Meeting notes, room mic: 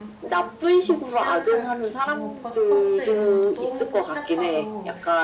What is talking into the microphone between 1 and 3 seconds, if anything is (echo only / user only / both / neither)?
both